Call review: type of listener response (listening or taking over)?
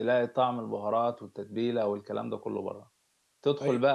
listening